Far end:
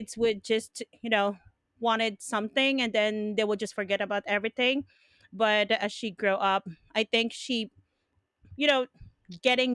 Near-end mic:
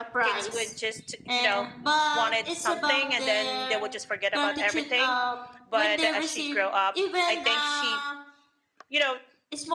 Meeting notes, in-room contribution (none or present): present